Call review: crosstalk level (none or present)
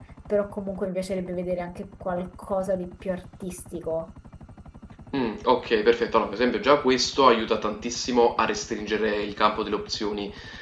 none